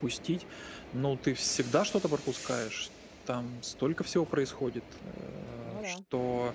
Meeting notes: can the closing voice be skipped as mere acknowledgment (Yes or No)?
Yes